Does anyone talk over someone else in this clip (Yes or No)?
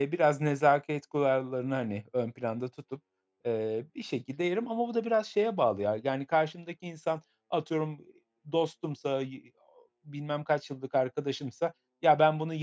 No